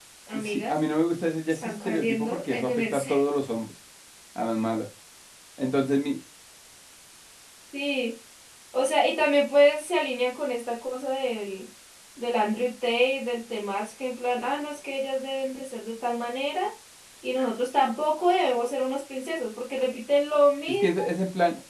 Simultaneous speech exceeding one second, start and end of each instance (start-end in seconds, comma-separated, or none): 1.5-3.2